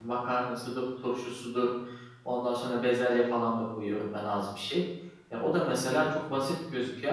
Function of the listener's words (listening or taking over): listening